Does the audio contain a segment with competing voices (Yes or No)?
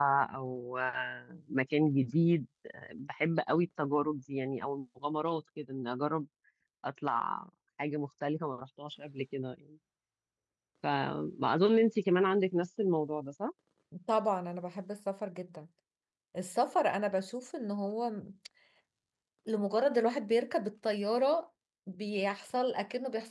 No